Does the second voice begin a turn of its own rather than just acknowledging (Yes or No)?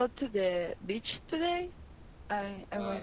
Yes